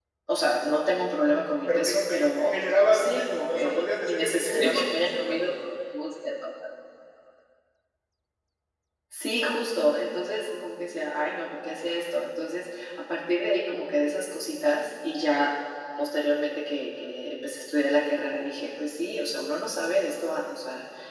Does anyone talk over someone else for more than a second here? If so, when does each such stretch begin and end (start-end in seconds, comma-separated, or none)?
1.7-5.5